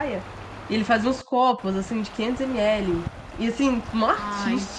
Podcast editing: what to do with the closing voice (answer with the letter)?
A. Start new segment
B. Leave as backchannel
B